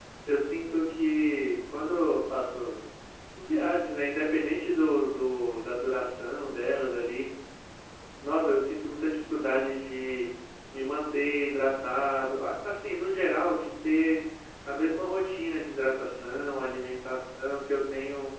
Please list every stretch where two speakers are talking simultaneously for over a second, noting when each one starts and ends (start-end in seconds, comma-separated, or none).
none